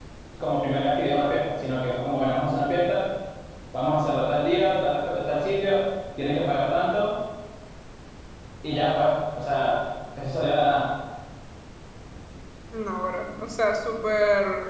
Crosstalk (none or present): none